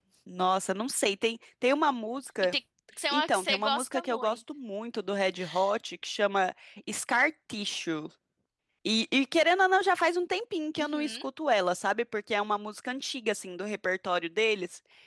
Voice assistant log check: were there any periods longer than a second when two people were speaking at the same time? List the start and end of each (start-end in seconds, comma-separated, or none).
3.1-4.4